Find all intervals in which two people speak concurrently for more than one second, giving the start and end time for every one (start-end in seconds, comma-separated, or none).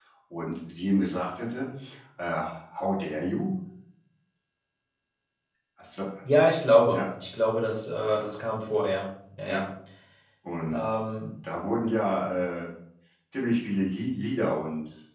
none